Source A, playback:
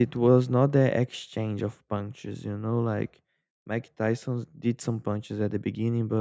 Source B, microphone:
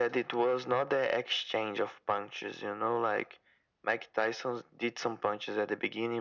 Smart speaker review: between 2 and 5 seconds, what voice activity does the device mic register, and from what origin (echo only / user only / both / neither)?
echo only